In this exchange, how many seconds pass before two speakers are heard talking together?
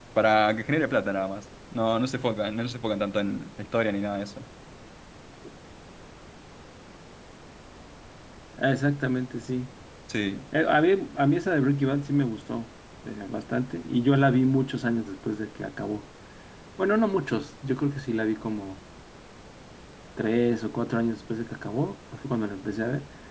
none

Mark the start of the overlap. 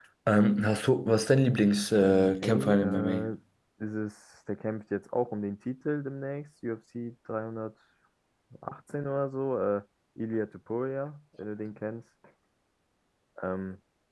1.9 s

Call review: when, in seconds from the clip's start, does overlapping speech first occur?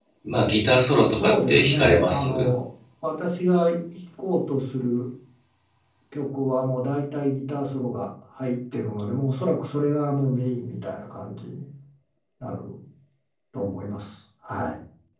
1.1 s

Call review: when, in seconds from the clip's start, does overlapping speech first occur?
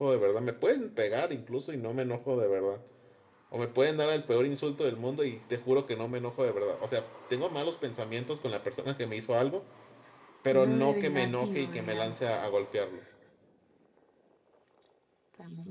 10.5 s

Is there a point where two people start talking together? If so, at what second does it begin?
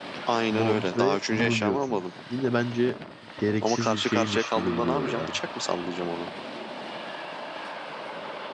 0.5 s

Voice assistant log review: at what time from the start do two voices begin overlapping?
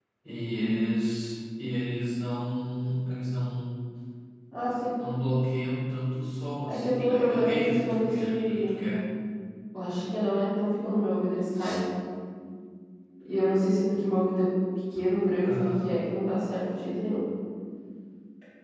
6.7 s

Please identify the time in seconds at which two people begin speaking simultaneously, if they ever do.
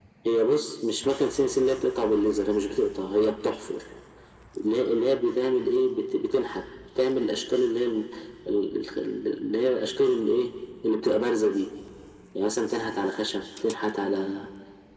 none

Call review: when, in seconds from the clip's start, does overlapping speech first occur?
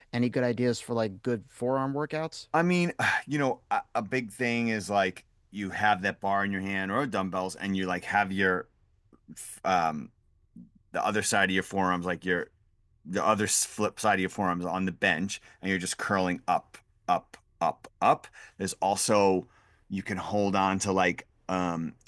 none

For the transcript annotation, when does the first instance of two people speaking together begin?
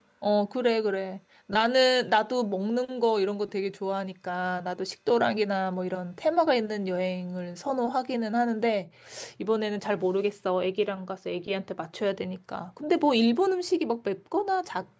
none

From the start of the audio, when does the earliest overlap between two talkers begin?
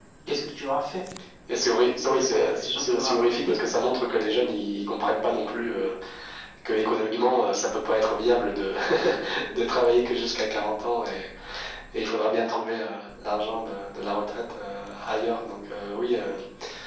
2.0 s

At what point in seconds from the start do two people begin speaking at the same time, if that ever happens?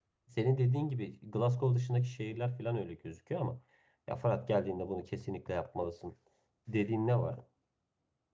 none

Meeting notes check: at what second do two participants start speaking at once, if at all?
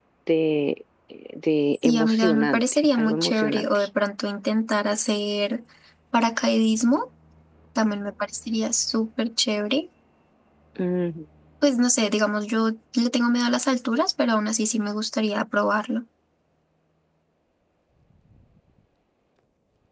1.7 s

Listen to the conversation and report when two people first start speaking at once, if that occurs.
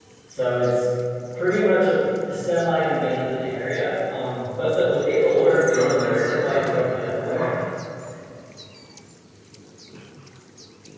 5.3 s

